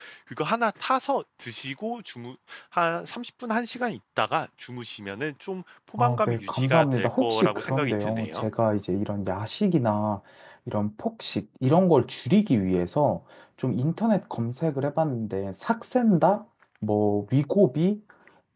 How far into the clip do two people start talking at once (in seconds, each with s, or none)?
6.0 s